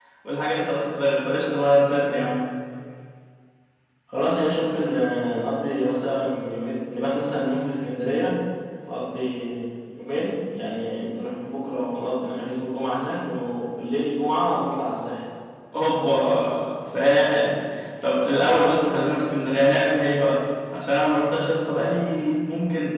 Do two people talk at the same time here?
No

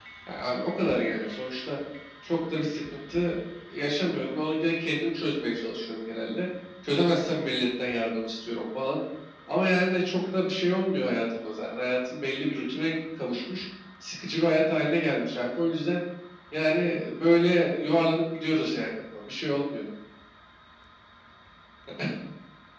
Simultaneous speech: No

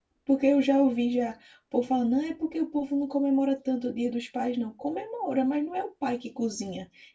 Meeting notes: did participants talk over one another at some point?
No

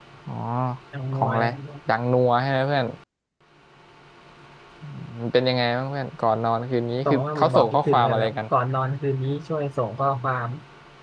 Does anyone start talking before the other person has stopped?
Yes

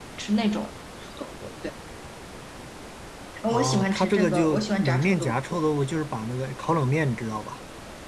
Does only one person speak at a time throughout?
No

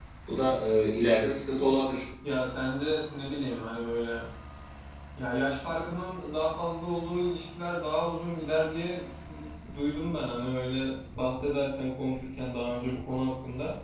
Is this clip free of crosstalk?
Yes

